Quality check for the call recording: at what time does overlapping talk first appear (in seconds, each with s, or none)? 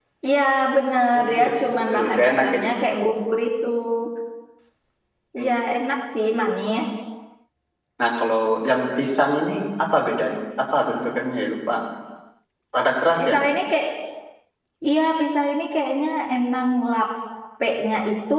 1.1 s